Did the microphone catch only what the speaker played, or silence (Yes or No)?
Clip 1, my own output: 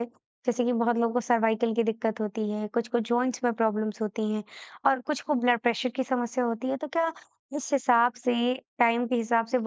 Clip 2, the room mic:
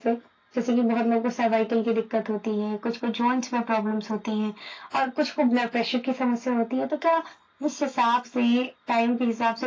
Yes